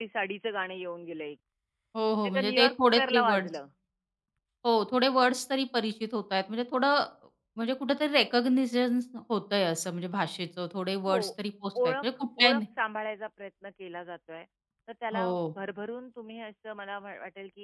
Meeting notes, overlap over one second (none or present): present